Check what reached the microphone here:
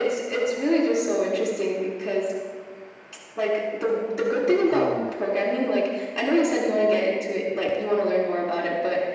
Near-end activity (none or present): present